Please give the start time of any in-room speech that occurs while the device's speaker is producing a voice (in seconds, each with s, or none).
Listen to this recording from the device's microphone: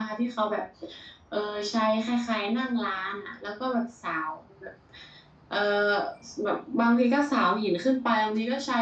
none